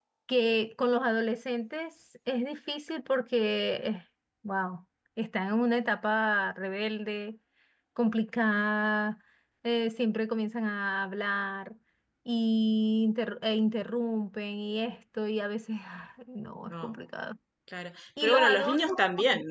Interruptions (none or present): present